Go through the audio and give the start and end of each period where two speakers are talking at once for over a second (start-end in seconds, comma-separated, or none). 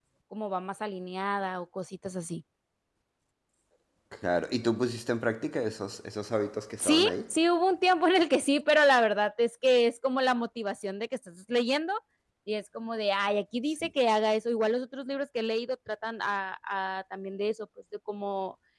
none